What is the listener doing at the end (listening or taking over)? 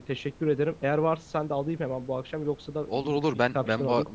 taking over